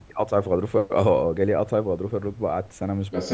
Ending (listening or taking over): taking over